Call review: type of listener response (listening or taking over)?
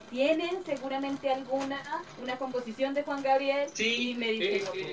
taking over